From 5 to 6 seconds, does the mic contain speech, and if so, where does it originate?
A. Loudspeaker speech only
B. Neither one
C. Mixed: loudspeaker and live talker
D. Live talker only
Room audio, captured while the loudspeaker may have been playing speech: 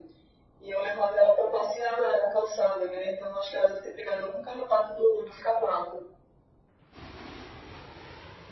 A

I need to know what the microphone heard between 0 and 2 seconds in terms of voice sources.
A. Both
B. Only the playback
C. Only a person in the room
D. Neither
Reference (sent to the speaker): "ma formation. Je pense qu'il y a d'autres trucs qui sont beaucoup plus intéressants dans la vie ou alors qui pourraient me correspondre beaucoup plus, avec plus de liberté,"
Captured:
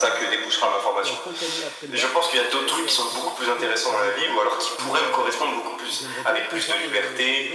A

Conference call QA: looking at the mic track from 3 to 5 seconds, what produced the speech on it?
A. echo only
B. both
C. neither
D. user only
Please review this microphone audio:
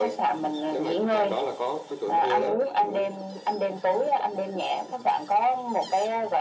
A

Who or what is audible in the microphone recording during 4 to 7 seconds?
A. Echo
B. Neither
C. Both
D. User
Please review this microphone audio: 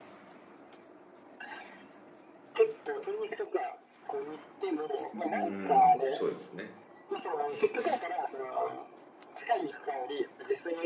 C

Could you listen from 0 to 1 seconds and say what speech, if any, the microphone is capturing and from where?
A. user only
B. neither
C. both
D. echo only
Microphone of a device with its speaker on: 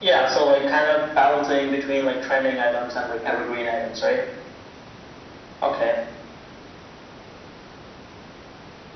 D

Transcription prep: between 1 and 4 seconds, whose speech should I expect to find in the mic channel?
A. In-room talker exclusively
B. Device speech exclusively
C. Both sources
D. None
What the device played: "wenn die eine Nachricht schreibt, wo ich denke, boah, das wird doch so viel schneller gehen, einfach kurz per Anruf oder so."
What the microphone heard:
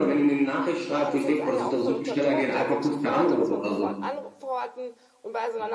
C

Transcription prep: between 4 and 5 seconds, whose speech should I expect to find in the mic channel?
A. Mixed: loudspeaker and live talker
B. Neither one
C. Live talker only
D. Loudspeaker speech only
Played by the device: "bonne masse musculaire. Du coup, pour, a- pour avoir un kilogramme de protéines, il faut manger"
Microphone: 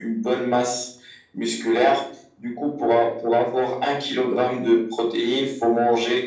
D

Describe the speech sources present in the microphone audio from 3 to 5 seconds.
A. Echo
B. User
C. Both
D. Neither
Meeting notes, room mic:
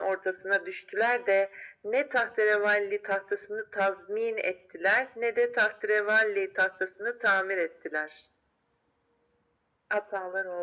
A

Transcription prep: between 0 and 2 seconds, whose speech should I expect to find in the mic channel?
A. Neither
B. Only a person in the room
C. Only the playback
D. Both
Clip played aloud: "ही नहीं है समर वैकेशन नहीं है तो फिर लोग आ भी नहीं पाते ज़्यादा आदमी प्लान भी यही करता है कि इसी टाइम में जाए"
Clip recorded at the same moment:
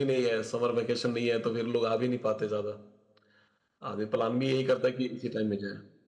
C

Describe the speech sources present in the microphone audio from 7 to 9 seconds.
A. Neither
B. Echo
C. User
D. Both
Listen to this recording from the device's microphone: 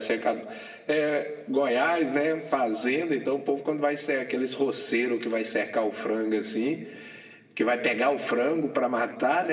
B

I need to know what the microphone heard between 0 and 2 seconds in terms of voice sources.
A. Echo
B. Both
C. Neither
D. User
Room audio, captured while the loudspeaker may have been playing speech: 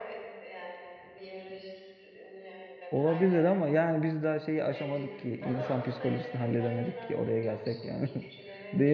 A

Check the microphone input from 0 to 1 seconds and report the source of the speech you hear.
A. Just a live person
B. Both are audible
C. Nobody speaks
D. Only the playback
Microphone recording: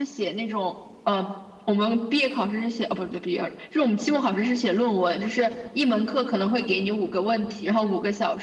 D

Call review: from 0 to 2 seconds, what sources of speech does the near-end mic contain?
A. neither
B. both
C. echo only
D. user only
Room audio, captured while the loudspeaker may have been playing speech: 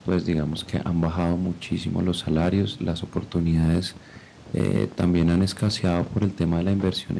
D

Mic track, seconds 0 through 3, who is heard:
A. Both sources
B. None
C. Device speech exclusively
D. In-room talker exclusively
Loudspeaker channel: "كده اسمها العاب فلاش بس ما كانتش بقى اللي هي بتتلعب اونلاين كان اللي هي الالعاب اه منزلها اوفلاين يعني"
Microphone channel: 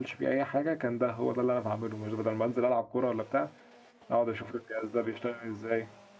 D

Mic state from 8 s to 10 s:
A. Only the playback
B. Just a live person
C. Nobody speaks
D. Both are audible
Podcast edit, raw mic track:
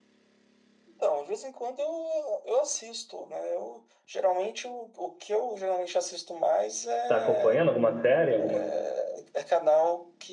D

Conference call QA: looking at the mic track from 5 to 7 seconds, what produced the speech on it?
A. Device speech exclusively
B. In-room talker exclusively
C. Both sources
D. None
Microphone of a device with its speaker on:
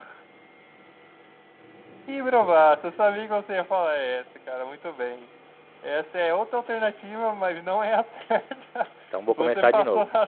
A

